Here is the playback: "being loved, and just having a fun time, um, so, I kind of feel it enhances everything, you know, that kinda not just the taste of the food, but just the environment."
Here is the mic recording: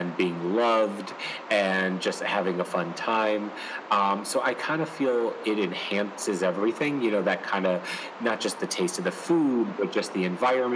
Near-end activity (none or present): none